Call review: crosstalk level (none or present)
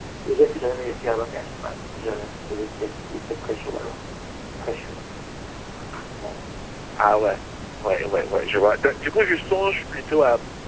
none